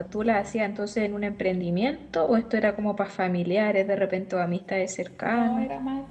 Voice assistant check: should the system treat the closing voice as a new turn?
Yes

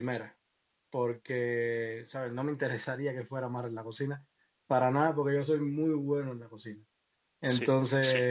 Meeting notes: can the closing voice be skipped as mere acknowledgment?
Yes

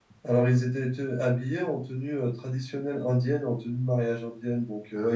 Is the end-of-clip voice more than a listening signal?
No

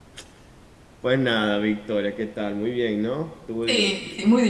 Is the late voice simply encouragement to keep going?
No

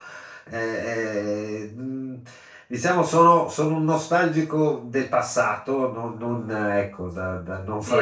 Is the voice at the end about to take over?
Yes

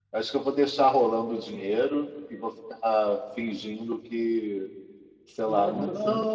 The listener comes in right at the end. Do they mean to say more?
No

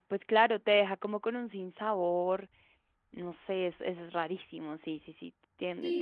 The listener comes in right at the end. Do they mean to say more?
Yes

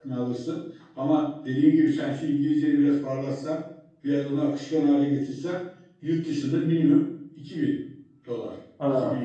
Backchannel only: No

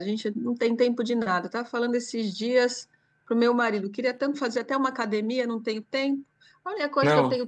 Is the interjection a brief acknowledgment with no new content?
Yes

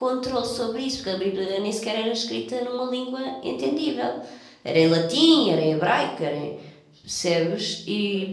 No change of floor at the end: Yes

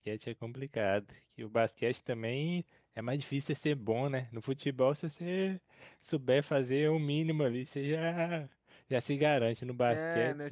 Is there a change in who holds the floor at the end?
Yes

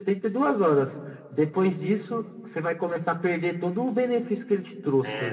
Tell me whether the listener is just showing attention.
No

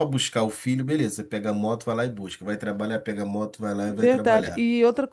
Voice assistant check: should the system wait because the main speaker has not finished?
No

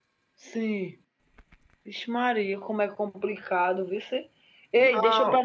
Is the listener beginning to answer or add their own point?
No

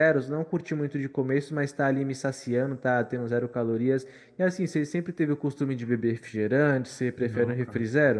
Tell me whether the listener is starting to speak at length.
Yes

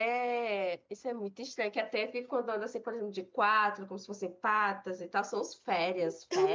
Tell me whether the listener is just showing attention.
No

